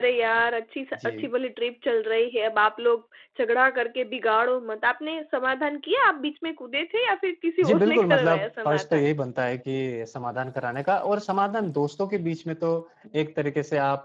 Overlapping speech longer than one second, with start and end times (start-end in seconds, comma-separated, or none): 7.6-9.0